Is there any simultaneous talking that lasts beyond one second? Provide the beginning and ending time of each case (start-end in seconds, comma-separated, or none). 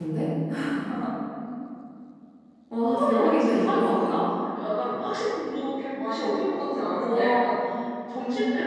2.9-4.2